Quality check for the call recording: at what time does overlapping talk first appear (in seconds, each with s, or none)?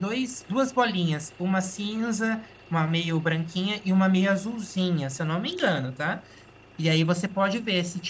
none